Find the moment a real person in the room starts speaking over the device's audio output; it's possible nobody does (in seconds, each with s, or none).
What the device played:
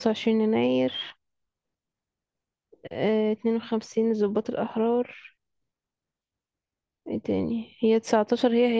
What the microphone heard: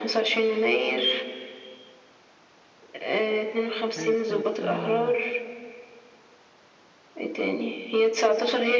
4.0 s